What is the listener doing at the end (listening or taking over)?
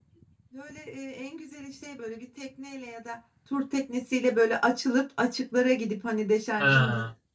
listening